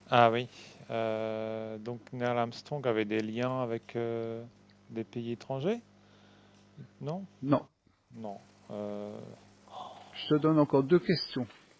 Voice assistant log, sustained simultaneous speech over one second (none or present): none